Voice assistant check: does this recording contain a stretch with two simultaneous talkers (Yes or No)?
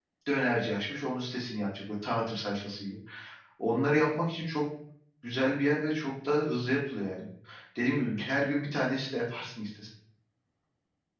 No